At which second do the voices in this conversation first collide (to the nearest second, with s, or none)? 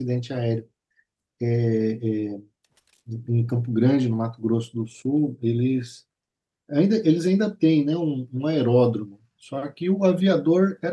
none